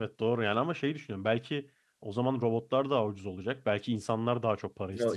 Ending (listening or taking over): taking over